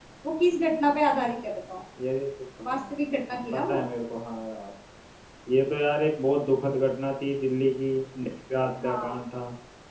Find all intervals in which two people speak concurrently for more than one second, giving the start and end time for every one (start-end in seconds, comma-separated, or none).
none